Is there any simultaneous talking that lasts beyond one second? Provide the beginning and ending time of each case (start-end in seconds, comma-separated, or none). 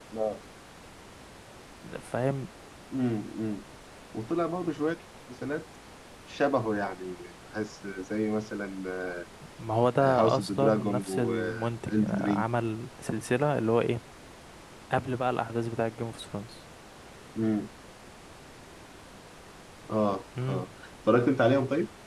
10.0-12.4